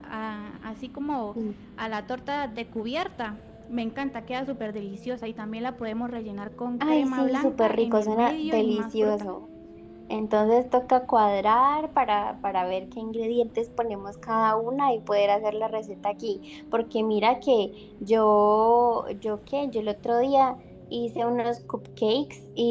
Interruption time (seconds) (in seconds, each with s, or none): 6.8 s